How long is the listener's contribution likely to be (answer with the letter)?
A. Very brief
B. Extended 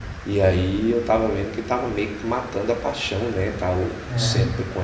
A